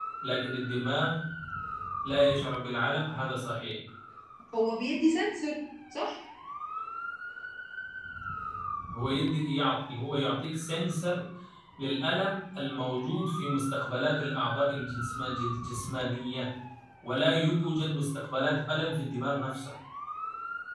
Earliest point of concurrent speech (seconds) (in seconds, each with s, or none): none